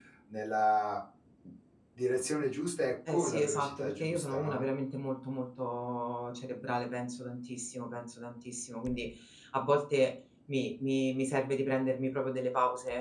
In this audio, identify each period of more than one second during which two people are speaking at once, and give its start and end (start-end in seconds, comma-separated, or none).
3.1-4.6